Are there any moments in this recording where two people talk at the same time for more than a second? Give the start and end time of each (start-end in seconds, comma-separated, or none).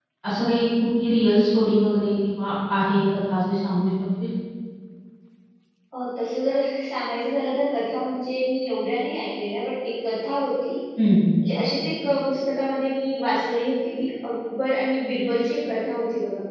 none